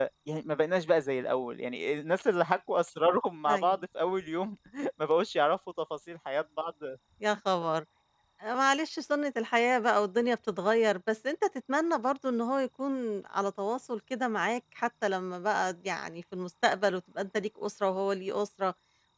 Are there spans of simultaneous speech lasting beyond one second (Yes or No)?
No